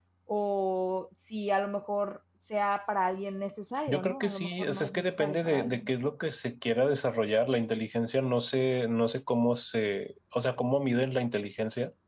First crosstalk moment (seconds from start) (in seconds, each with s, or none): 3.9 s